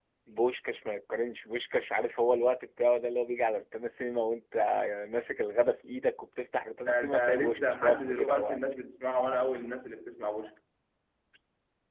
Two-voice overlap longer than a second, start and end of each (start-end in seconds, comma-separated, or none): 6.8-8.6